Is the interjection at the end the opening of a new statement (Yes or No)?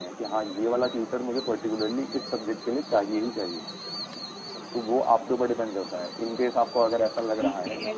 Yes